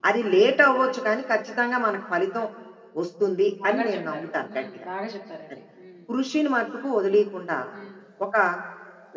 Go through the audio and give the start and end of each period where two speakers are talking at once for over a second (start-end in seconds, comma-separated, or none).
3.6-4.8